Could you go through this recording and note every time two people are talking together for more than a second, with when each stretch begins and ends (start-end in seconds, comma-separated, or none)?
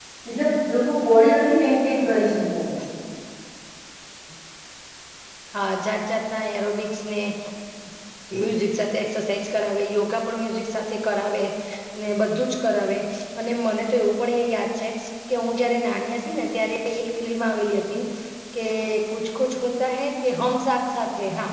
none